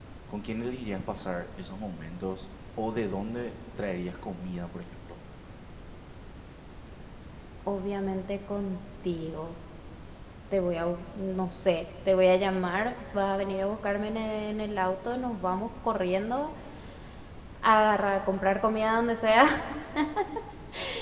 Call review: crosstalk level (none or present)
none